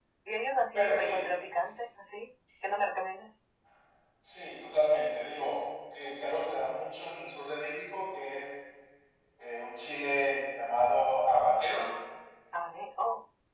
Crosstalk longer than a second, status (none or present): none